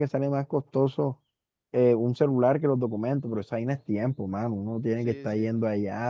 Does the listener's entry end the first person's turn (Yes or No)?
No